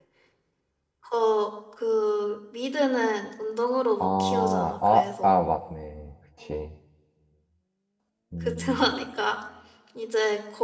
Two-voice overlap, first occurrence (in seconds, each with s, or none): 4.0 s